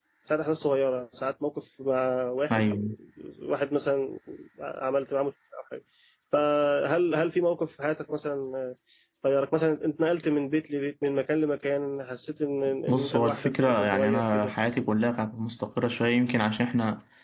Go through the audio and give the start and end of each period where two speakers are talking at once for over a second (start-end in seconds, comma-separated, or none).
12.9-14.5